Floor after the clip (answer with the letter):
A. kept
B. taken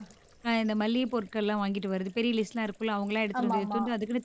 A